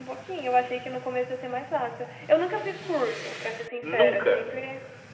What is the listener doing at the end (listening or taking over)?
listening